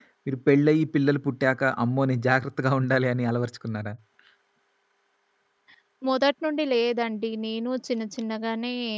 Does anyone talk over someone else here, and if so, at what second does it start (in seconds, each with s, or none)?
none